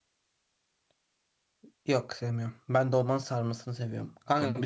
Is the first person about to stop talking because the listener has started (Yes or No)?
No